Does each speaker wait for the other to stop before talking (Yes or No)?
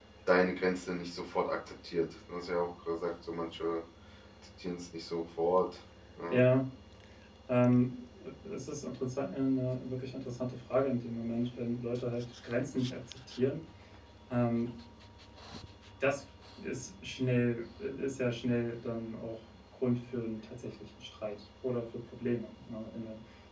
Yes